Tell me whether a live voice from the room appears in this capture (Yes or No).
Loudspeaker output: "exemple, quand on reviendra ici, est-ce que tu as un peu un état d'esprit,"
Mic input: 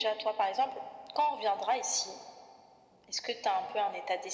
No